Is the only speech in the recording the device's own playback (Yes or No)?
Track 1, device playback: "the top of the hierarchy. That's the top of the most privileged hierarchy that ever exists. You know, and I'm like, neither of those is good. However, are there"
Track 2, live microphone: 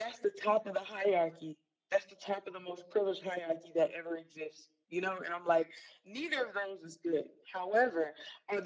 Yes